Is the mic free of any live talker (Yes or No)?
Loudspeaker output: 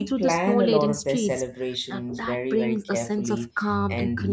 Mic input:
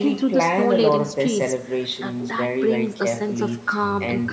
Yes